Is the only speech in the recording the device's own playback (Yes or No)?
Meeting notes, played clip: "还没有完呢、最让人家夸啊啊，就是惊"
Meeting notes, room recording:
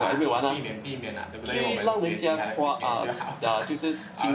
No